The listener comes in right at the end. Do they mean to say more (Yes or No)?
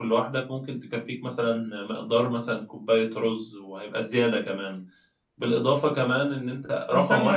Yes